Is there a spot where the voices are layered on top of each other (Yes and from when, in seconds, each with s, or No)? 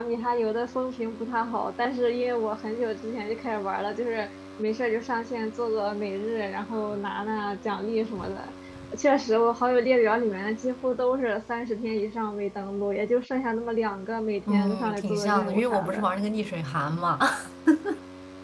Yes, from 14.5 s